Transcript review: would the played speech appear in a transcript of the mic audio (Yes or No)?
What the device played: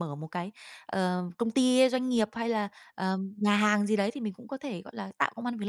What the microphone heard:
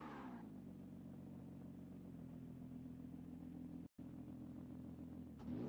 No